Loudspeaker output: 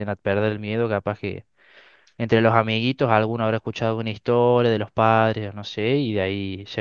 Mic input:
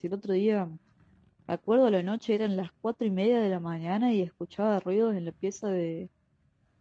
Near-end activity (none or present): present